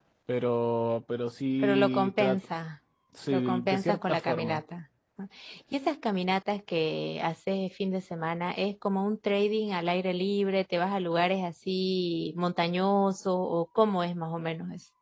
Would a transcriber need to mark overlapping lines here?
Yes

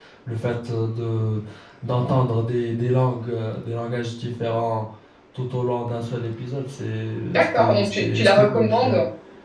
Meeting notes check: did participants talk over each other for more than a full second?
Yes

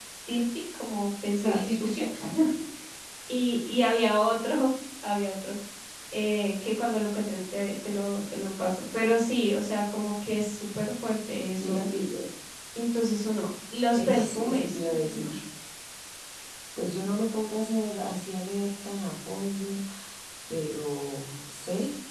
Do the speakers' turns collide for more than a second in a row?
Yes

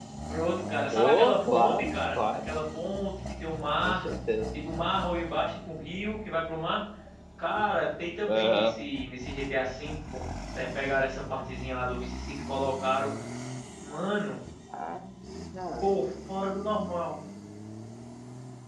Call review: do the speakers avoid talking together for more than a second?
No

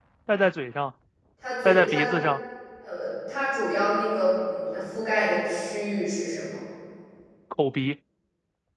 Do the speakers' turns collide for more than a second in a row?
No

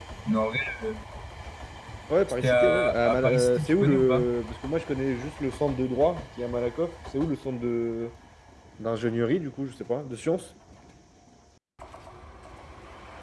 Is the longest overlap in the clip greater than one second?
Yes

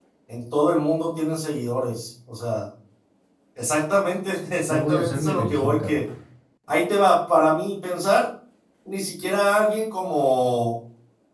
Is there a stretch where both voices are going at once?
Yes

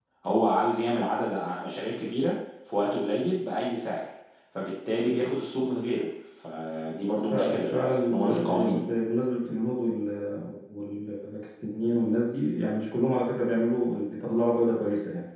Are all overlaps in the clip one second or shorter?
No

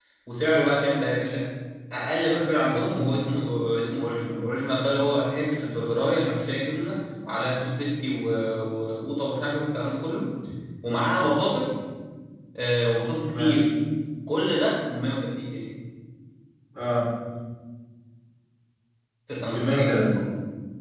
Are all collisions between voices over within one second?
Yes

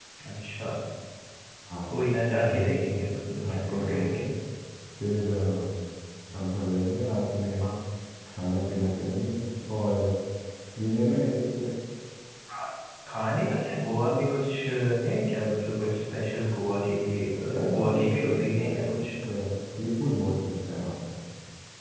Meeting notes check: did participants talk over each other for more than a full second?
Yes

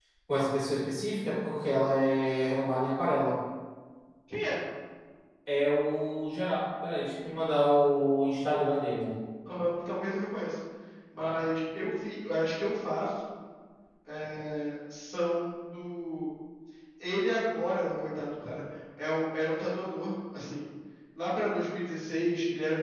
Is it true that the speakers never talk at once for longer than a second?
Yes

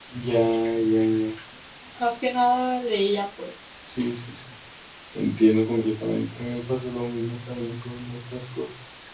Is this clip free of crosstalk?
Yes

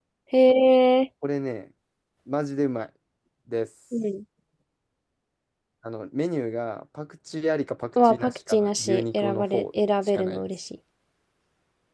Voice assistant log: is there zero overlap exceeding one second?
No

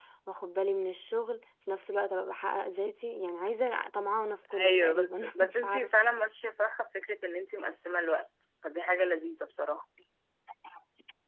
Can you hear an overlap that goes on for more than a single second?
Yes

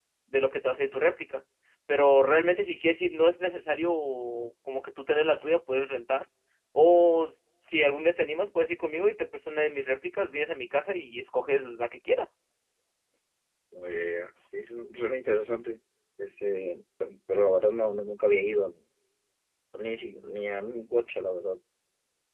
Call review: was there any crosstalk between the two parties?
No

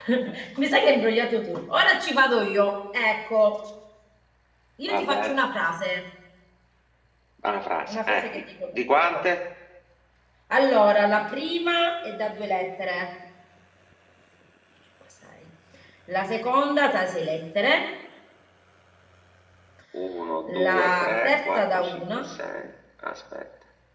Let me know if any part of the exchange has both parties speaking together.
Yes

